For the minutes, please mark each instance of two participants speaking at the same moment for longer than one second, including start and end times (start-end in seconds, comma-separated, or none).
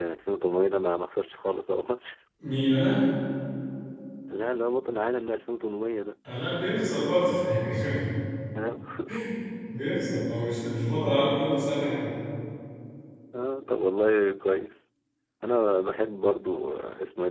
none